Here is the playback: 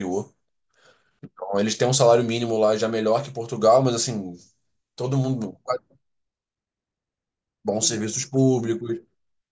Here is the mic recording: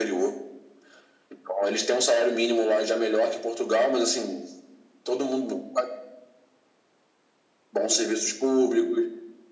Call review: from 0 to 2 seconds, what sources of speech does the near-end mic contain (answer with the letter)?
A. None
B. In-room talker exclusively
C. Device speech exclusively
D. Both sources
C